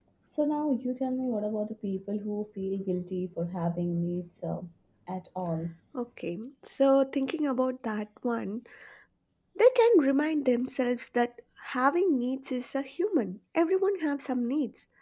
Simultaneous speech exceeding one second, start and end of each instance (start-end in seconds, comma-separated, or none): none